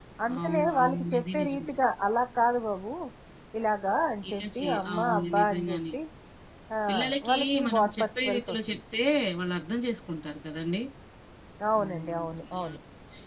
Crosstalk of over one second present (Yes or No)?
Yes